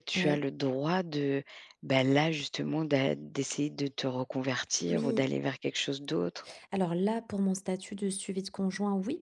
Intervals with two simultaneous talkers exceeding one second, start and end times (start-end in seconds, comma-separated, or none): none